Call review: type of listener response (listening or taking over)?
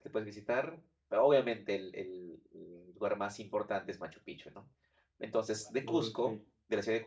listening